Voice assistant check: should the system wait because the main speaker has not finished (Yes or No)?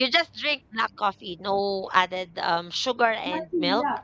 No